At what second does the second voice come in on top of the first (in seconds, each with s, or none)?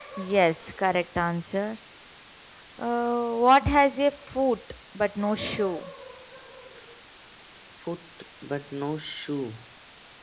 none